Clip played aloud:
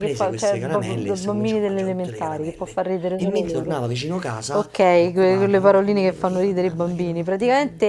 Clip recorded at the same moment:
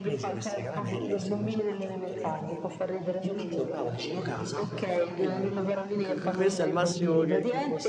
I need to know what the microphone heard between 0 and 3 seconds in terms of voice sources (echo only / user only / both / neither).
echo only